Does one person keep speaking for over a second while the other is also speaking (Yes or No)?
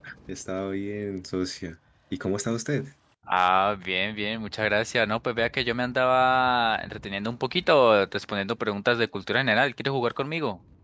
No